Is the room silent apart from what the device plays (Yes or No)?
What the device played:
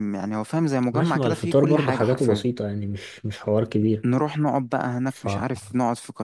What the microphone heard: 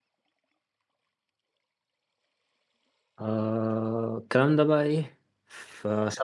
No